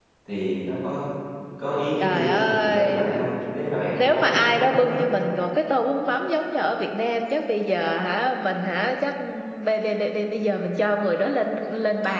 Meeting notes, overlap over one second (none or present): present